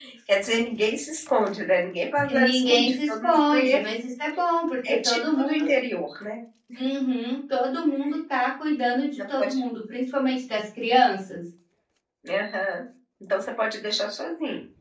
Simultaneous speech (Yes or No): Yes